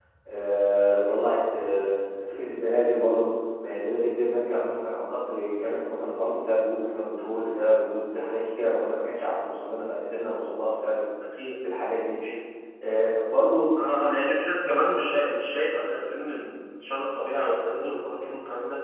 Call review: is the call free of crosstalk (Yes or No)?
Yes